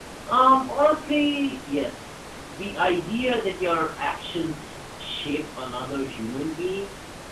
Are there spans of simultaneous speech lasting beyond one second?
No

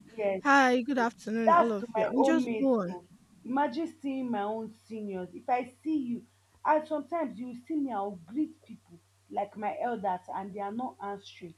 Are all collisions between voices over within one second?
No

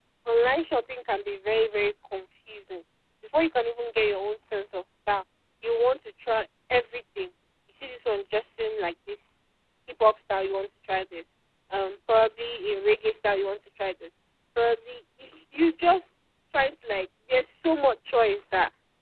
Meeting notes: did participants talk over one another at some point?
No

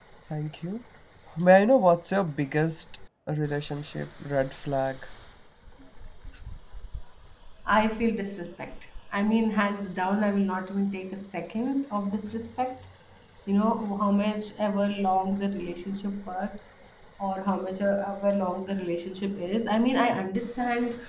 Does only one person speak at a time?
Yes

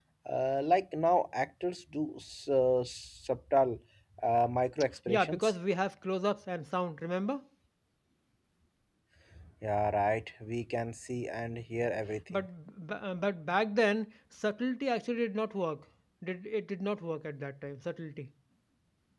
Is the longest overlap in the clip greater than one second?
No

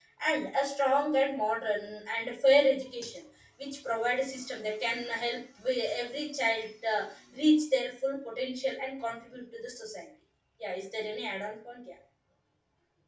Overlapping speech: No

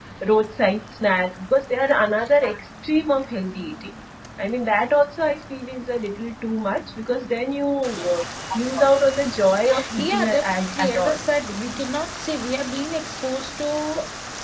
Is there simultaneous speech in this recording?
Yes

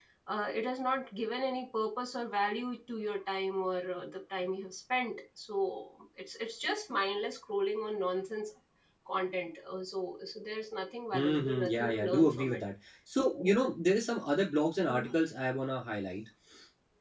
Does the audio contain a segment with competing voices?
Yes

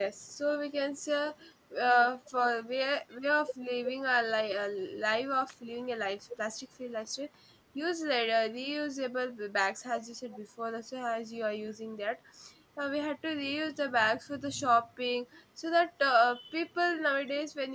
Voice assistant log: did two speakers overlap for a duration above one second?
No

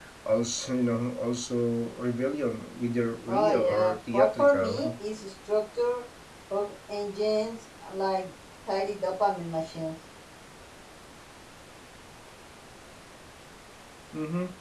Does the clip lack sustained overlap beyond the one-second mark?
No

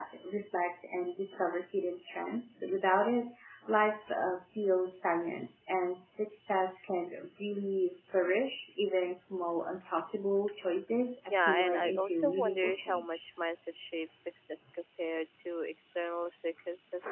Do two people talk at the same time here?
Yes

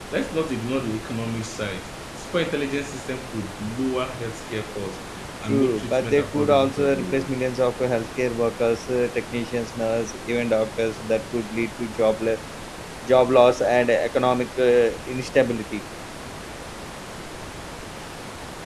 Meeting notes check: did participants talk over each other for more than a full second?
Yes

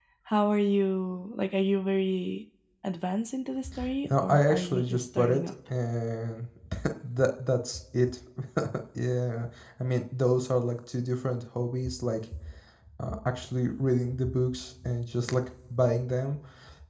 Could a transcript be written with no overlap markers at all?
No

